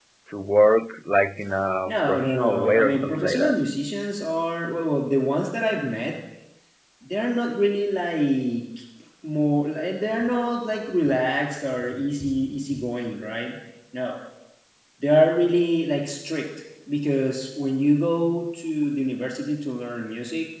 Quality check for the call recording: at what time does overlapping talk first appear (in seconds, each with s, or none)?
1.9 s